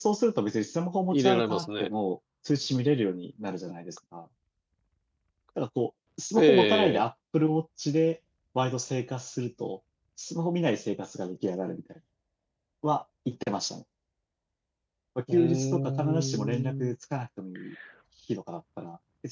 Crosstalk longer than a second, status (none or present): present